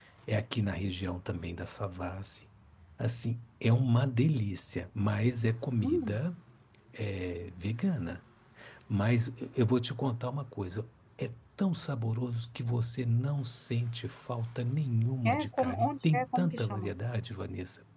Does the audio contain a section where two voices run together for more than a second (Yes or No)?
Yes